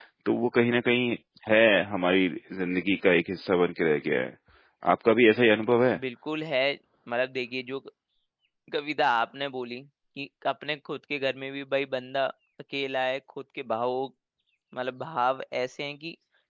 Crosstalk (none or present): none